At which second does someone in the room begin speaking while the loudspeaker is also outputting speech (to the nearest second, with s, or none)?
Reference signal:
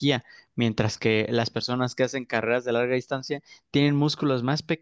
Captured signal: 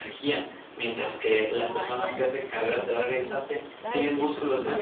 2 s